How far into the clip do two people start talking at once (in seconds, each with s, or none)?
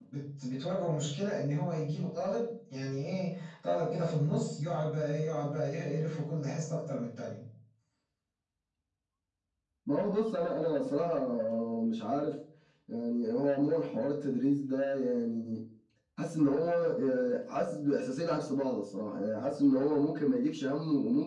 none